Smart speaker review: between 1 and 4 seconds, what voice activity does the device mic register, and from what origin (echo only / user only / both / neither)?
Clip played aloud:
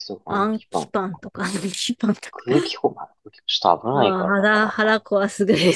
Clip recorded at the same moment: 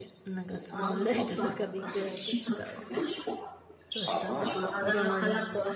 both